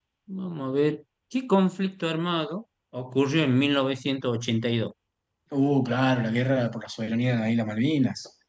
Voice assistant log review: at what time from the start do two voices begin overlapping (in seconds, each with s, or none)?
none